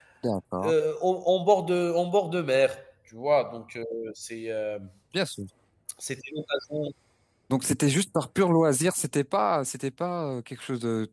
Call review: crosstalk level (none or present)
none